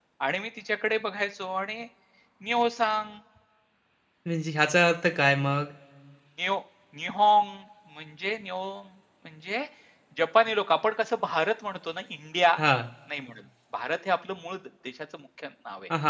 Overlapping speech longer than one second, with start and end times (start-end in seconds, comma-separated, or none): none